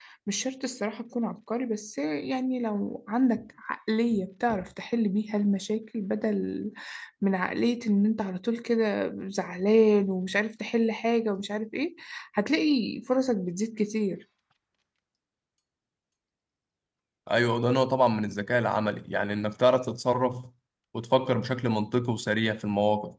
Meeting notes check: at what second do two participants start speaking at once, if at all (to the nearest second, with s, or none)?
none